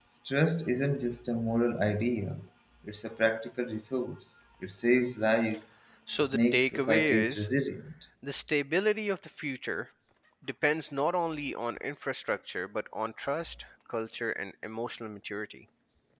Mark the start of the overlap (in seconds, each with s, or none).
6.2 s